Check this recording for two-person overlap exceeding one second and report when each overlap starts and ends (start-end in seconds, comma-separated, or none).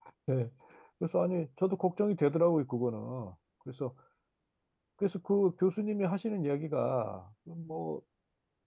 none